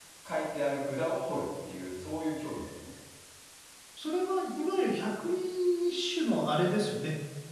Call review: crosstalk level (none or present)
none